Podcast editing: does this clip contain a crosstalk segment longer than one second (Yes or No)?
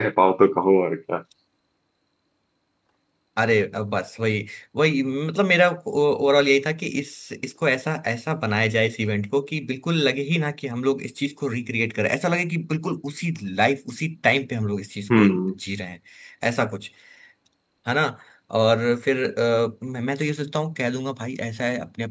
No